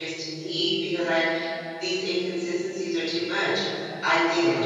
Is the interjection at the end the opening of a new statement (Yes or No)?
No